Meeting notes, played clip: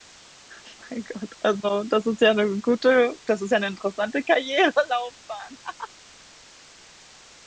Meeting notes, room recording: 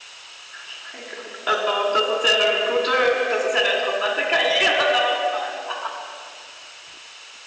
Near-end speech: none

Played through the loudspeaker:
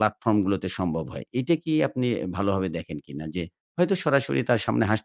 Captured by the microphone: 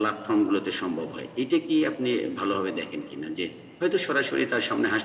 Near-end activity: none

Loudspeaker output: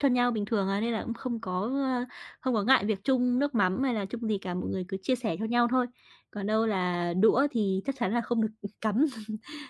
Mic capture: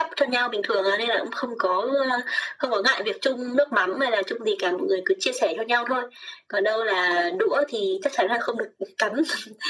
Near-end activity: none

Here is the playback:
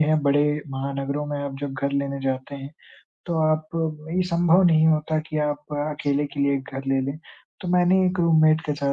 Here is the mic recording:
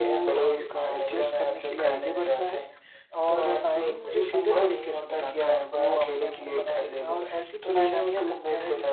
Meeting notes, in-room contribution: present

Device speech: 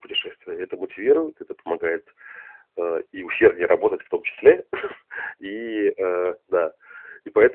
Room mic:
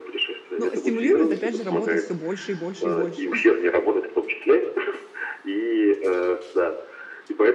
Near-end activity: present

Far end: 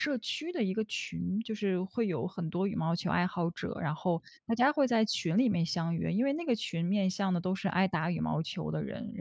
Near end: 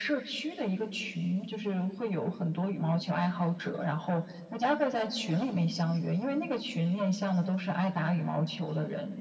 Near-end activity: none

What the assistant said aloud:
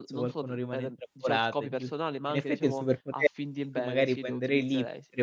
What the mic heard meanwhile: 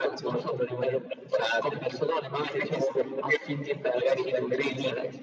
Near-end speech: none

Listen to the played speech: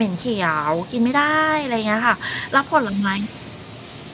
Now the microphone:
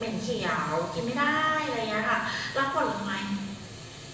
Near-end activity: none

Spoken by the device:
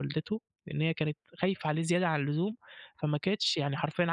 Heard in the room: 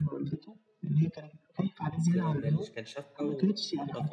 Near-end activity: present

